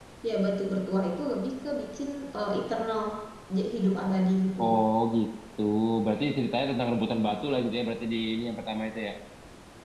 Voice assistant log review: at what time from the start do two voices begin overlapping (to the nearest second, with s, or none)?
none